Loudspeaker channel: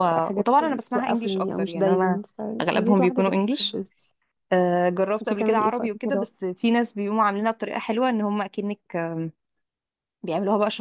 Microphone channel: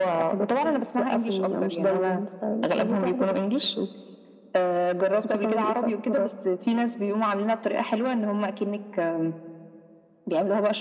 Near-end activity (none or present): none